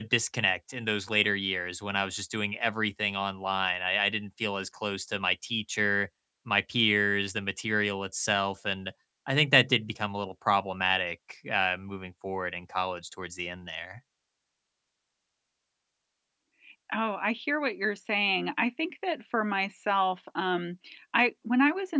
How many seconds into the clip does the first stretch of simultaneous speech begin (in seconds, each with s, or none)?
none